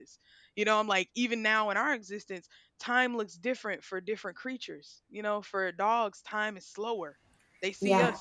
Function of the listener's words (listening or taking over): listening